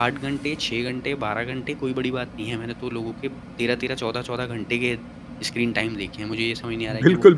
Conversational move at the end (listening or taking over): taking over